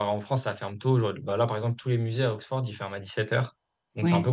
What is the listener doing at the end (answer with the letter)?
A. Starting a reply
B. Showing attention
B